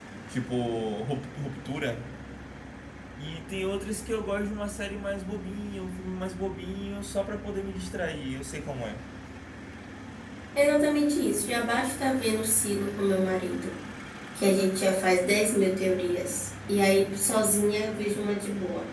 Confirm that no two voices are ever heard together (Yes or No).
Yes